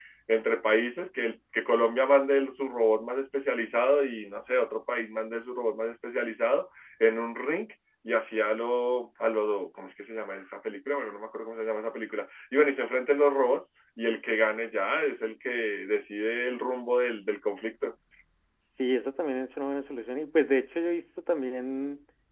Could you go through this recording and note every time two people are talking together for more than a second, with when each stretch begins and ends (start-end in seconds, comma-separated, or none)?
none